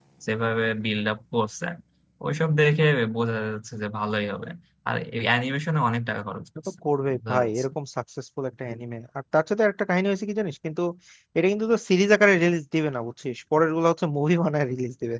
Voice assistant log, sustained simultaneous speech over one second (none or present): none